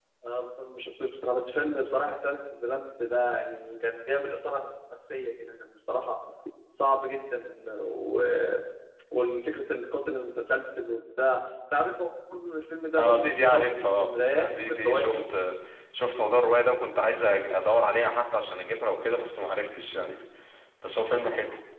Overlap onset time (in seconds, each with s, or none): 13.0 s